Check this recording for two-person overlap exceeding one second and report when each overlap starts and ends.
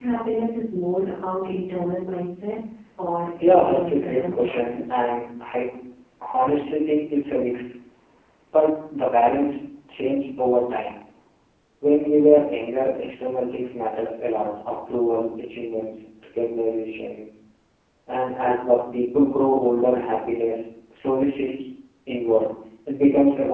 3.6-5.0

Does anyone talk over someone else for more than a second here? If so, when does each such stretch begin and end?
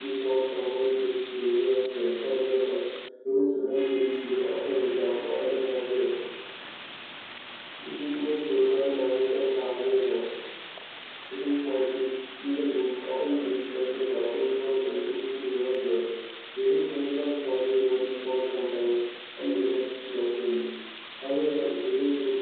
none

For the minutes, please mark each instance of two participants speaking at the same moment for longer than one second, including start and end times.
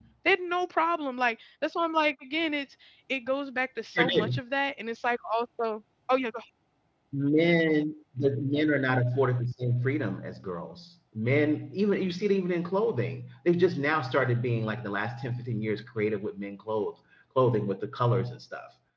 none

